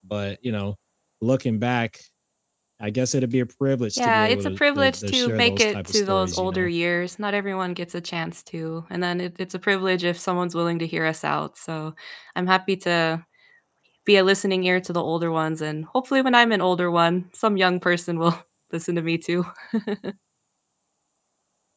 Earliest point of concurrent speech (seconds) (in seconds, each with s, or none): 4.0 s